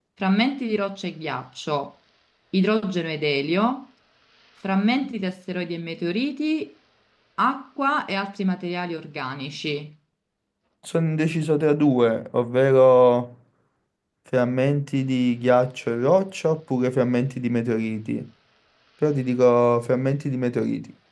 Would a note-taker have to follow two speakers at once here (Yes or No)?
No